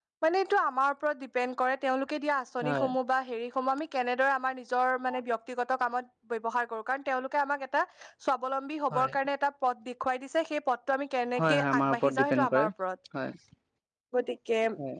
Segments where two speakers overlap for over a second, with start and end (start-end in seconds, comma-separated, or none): 11.4-12.7